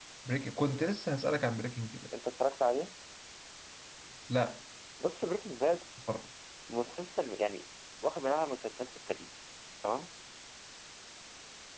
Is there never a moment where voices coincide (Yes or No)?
Yes